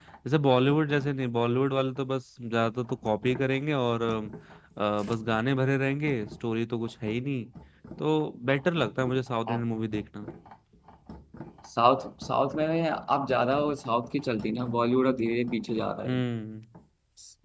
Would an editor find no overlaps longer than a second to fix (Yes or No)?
Yes